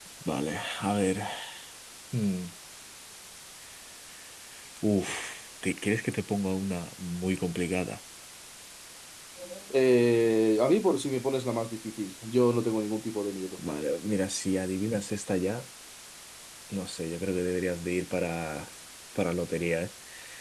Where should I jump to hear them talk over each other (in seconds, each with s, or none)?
none